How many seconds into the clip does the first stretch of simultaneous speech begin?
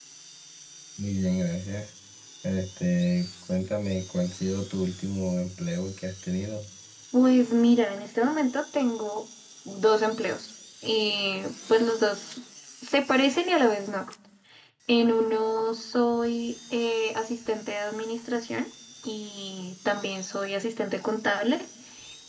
none

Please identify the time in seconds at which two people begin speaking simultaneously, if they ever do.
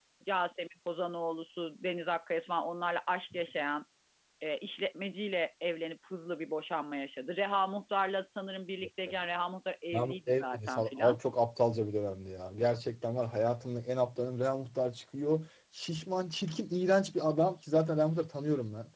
9.9 s

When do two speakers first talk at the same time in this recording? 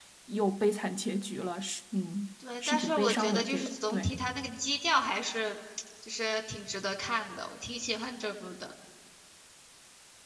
2.7 s

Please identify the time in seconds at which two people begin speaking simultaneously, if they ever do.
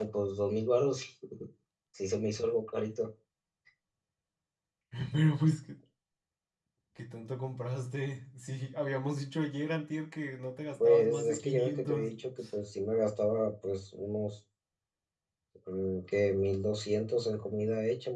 10.8 s

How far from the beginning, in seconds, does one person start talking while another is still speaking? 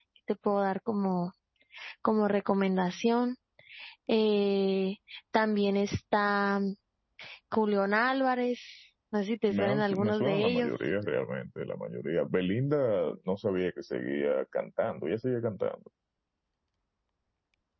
9.5 s

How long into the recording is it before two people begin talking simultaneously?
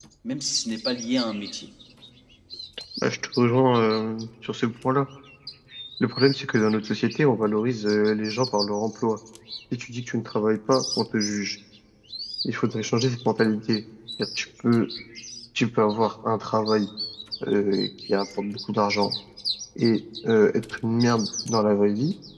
none

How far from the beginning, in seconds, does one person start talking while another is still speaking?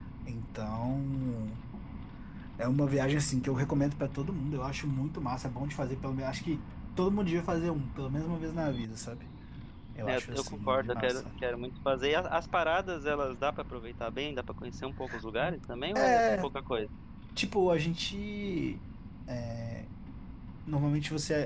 10.1 s

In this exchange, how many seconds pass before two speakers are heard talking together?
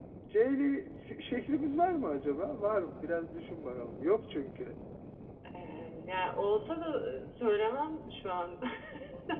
none

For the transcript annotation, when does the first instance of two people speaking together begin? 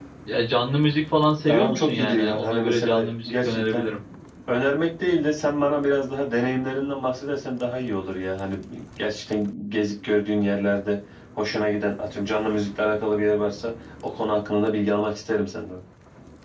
1.4 s

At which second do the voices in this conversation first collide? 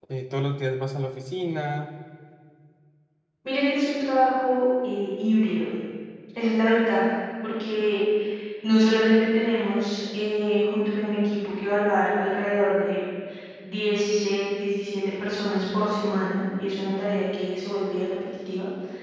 none

